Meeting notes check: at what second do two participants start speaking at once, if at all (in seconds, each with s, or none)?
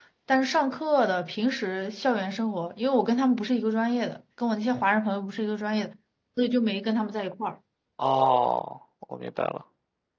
none